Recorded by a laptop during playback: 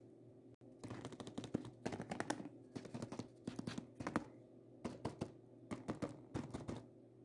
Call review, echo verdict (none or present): none